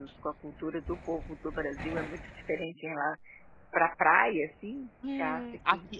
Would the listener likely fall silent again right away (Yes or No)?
No